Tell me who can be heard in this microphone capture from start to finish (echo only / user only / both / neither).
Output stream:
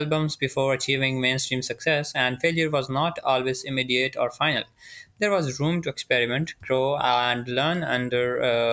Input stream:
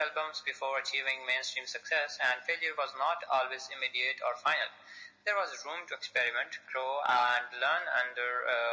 echo only